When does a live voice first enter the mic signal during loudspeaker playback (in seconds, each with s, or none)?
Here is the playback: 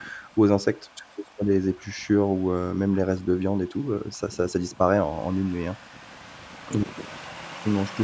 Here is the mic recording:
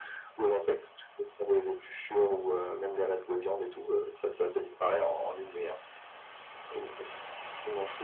none